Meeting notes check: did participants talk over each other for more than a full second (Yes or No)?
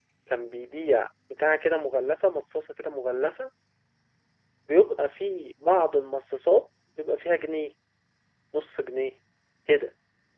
No